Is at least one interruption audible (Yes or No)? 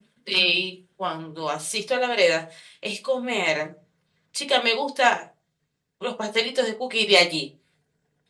No